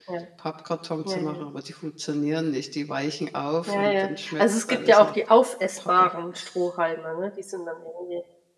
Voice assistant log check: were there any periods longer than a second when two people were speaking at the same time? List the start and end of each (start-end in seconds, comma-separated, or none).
3.7-5.1